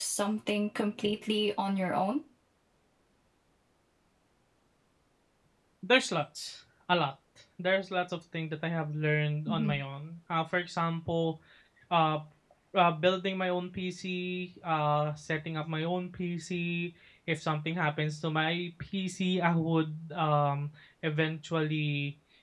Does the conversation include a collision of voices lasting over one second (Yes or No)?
No